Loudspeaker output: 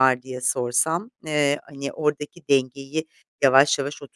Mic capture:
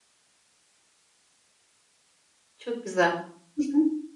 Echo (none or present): none